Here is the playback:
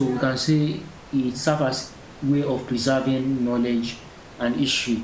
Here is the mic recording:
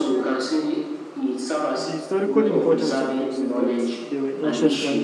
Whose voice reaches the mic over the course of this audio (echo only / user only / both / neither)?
both